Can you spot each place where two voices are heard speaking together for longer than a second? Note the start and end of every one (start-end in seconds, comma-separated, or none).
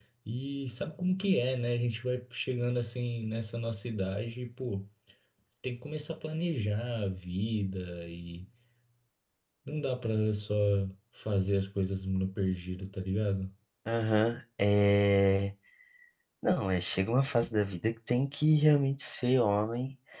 none